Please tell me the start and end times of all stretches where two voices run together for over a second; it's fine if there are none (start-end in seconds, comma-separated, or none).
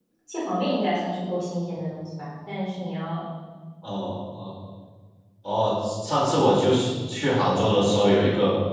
none